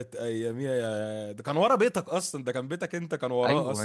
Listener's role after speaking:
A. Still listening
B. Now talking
B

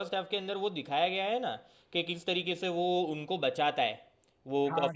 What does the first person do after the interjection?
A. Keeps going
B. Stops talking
B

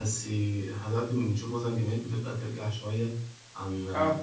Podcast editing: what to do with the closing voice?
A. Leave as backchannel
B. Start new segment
A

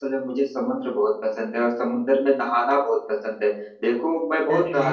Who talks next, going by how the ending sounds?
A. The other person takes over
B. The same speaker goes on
B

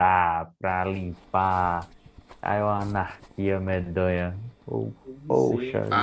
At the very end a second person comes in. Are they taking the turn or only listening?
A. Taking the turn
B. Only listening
A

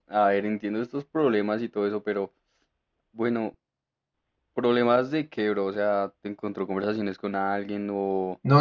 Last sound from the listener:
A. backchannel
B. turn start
B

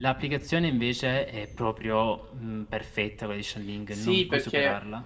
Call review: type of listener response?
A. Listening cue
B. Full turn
B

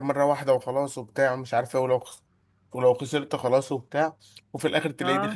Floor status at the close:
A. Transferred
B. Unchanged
B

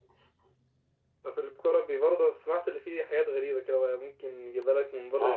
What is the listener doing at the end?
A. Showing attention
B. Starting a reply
B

